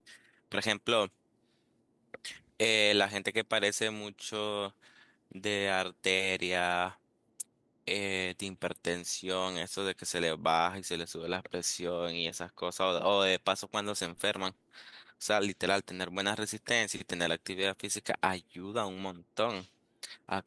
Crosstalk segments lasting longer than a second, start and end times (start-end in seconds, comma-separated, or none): none